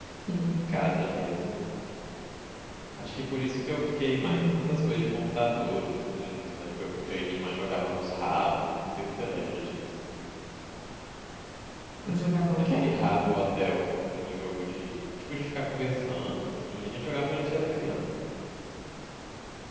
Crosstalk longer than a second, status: none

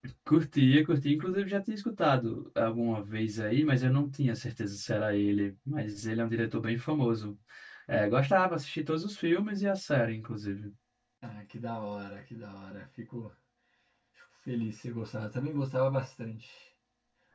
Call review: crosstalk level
none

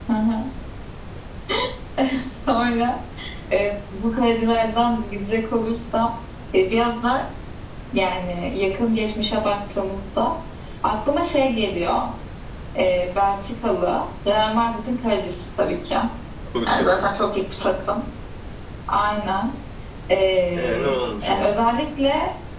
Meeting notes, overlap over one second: none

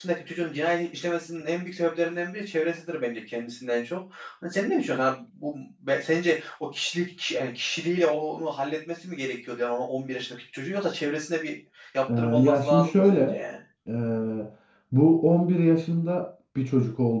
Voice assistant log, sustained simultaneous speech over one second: present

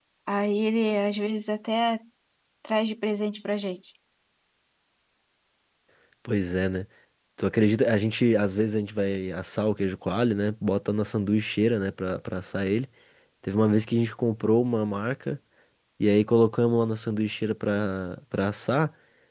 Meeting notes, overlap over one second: none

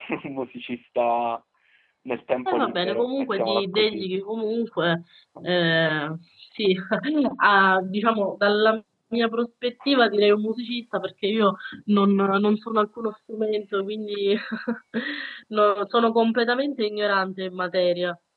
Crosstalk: present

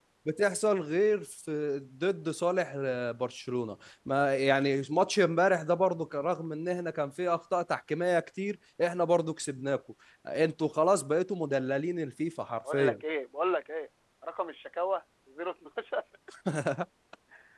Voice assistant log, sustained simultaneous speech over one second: none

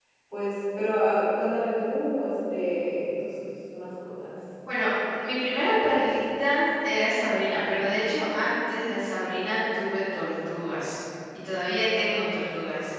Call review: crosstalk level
none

